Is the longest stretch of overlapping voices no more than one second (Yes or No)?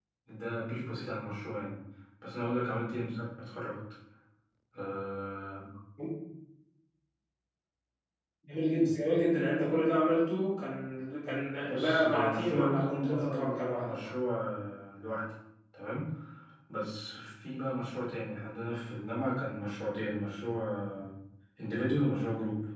No